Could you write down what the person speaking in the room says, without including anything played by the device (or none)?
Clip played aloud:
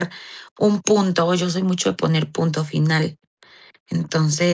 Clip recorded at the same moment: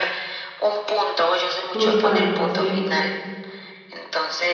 Justamente, sí.